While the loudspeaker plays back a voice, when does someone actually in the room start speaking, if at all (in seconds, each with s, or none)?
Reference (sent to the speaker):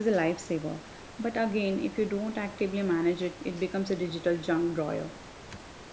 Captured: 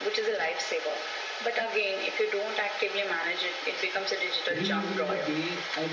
4.5 s